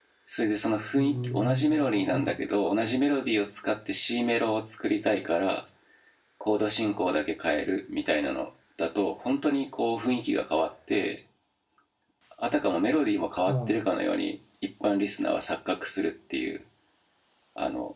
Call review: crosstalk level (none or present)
present